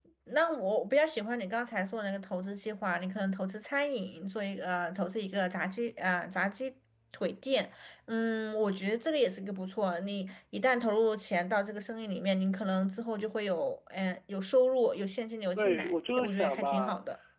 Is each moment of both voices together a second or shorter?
No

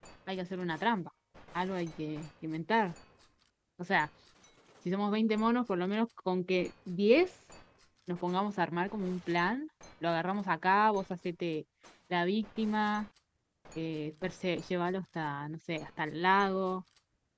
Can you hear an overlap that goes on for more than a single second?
No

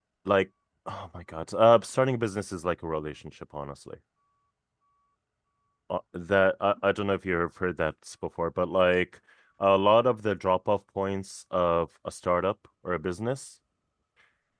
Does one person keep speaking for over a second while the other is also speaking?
No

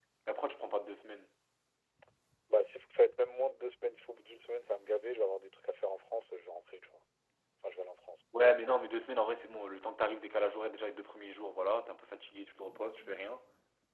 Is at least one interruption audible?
No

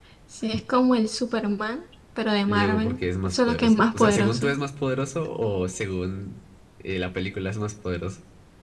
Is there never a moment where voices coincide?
No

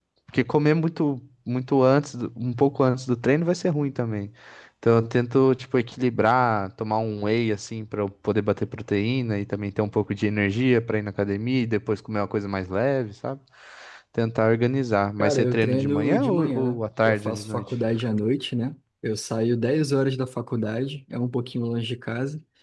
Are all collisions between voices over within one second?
No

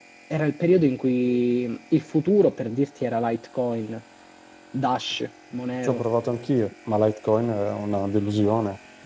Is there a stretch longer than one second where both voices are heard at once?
No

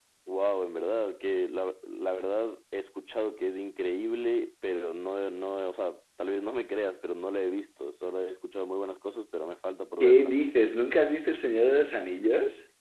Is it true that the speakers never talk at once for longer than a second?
Yes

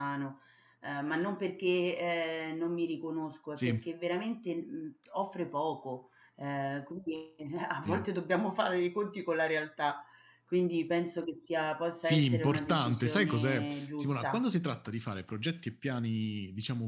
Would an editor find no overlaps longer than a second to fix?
No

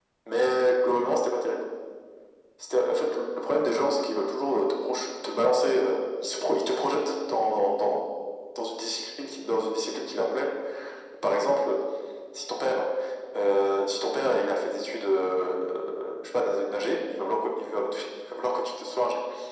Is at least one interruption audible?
No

